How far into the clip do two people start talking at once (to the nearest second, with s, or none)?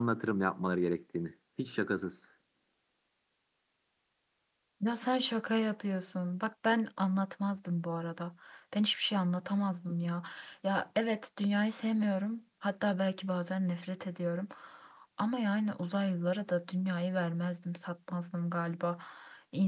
none